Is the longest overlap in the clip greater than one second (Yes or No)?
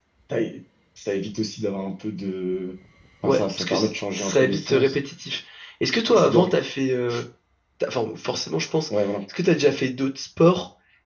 Yes